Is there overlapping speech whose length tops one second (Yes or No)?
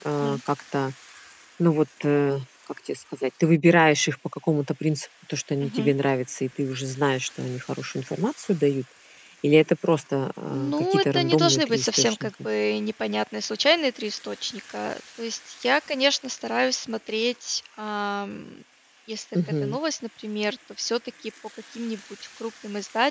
Yes